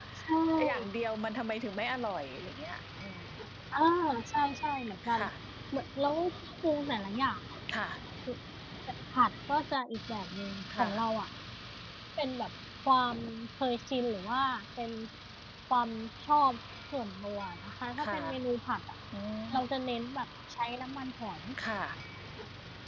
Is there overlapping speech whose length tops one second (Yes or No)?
No